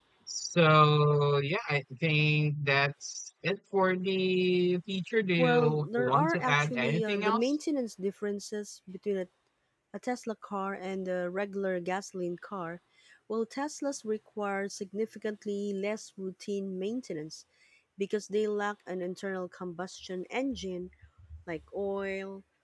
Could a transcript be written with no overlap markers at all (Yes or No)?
No